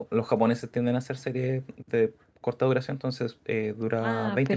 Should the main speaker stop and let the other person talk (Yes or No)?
Yes